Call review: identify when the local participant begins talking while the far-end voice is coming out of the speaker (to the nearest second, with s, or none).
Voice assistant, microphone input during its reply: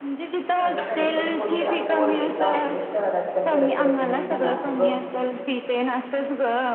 1 s